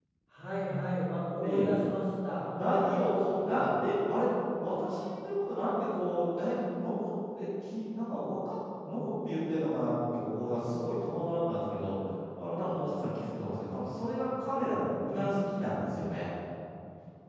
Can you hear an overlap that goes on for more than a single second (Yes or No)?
Yes